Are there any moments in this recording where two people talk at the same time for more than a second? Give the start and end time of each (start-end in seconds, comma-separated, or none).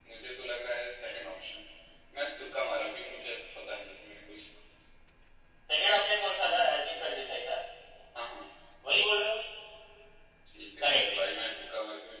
none